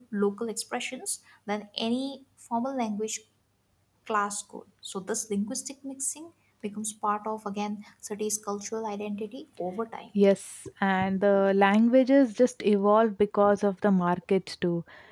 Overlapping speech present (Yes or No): No